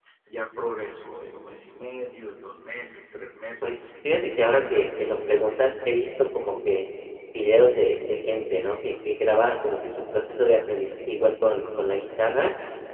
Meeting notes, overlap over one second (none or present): present